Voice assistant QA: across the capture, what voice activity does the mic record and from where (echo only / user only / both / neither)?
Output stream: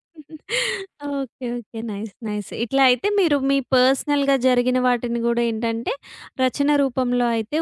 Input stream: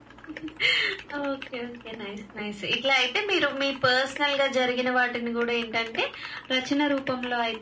echo only